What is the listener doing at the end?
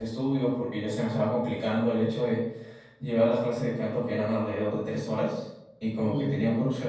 listening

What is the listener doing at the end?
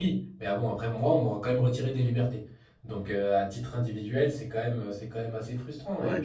taking over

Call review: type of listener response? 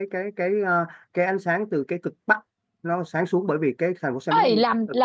taking over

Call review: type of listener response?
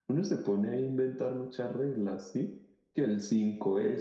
listening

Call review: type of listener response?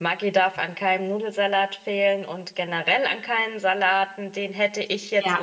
listening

